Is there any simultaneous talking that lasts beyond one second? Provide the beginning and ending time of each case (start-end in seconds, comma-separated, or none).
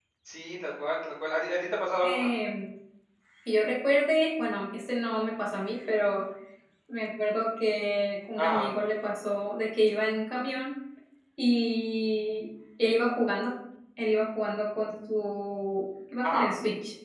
none